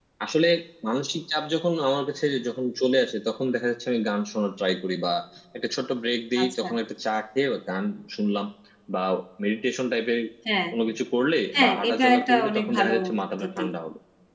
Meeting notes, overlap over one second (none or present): present